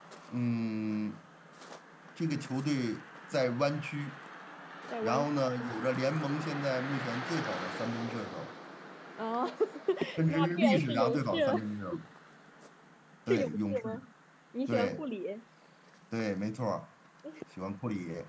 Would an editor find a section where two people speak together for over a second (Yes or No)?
Yes